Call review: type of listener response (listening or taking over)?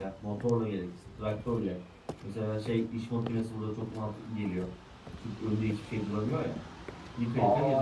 taking over